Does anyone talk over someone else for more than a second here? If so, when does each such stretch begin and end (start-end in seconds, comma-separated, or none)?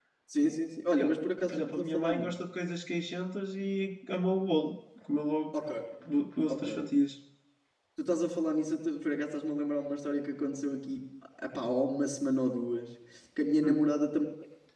1.0-2.3